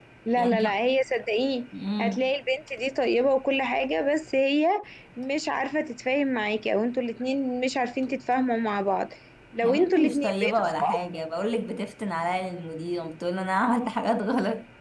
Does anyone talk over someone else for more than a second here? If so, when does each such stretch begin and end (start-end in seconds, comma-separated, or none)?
9.6-11.0